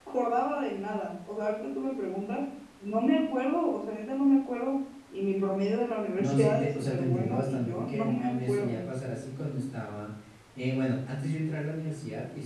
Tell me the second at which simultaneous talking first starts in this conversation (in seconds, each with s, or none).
6.2 s